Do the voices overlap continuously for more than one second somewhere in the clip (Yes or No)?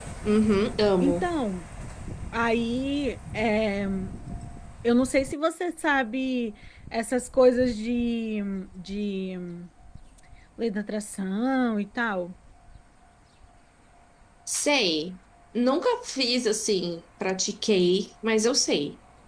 No